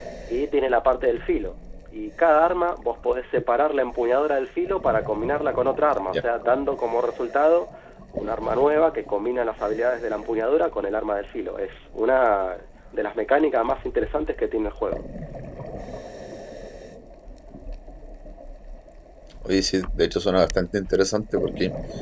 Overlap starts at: none

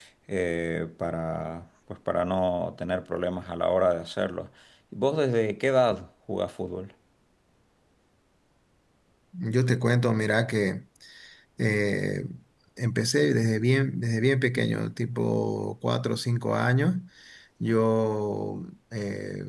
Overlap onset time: none

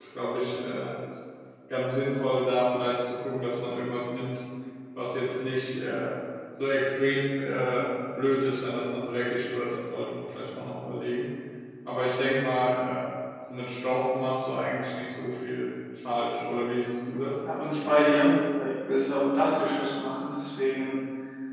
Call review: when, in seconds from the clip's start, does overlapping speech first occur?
none

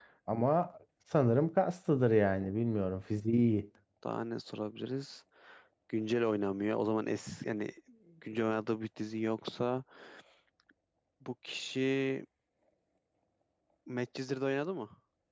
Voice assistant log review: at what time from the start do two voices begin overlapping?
none

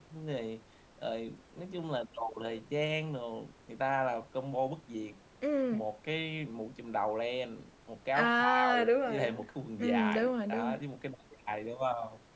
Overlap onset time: 8.1 s

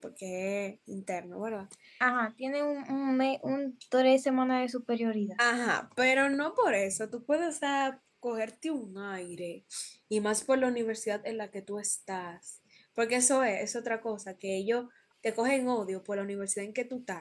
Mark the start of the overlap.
none

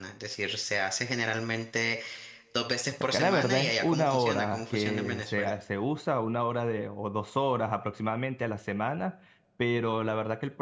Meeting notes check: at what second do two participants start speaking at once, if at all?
3.1 s

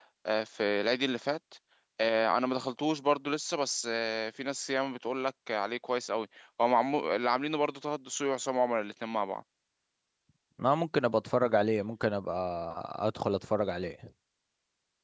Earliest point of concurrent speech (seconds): none

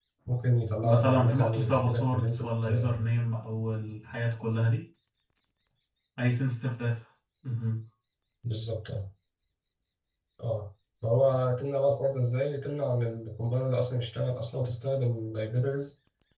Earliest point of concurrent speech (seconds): 0.8 s

